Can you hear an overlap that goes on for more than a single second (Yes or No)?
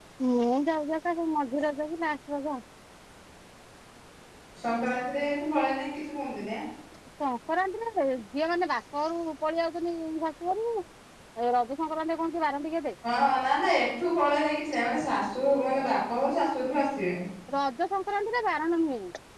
No